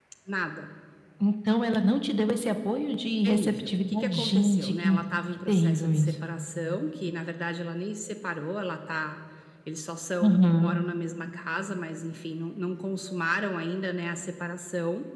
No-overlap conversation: No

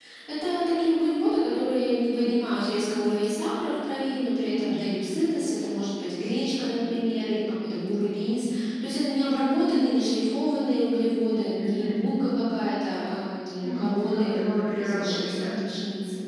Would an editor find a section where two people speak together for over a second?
Yes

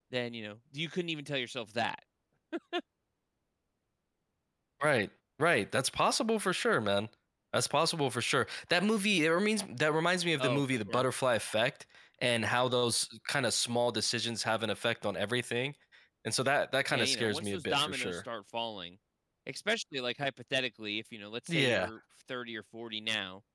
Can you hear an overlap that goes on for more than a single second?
Yes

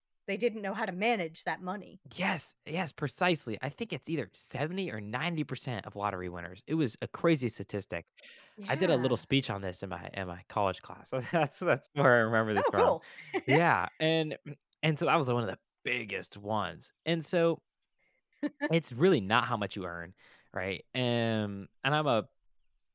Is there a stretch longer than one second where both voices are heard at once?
No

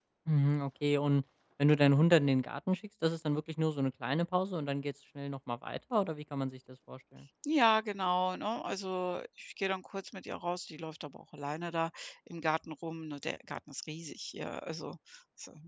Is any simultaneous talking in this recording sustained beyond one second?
No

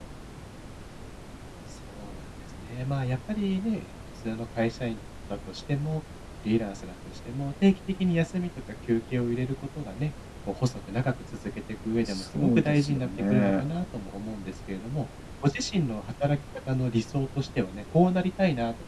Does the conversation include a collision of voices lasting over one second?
Yes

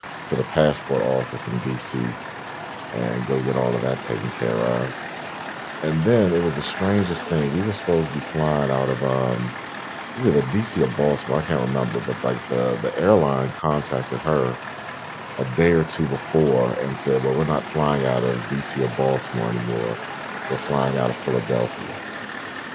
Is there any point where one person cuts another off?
No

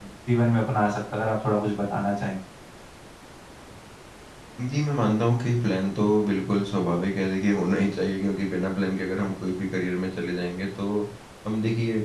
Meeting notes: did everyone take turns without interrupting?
Yes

